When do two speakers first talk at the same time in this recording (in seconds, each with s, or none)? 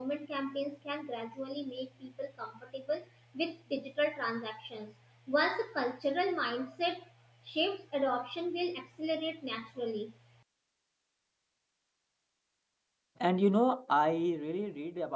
none